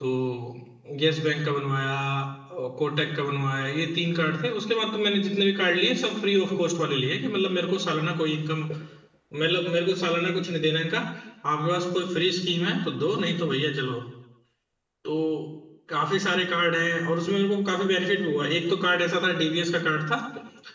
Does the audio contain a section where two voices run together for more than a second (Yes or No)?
No